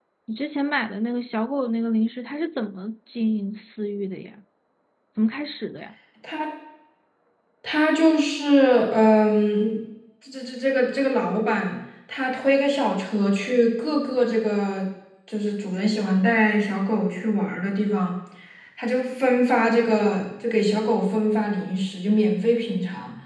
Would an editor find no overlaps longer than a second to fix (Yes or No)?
Yes